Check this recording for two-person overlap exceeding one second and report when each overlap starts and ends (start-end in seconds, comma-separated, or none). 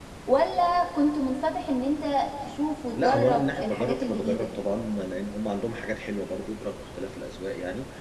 3.0-4.6